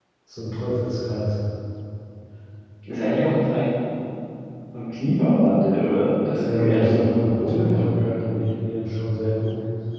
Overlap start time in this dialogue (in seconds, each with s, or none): 6.3 s